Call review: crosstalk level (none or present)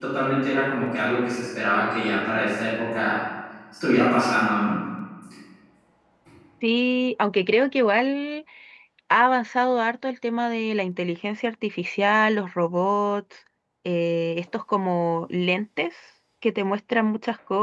none